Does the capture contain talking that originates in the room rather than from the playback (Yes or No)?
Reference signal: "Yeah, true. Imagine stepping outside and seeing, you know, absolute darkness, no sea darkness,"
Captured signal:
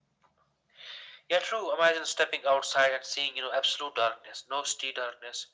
No